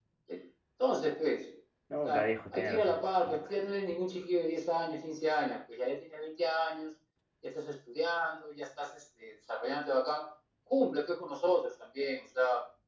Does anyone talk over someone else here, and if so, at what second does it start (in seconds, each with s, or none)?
1.9 s